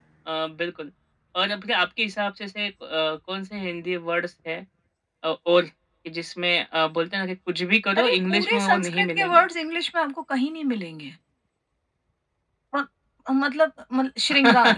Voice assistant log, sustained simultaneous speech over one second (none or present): present